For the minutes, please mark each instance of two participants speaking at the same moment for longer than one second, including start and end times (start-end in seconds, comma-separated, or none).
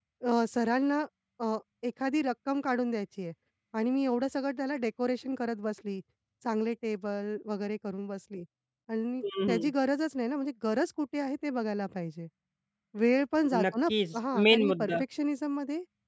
13.6-15.0